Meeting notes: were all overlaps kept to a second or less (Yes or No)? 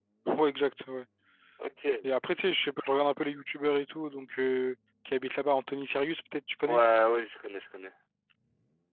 Yes